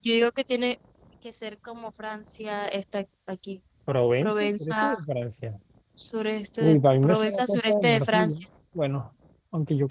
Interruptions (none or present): present